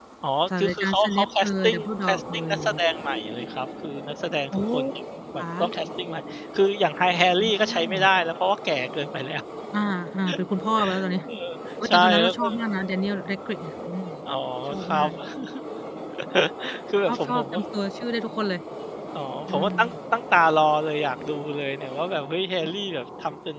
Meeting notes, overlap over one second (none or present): present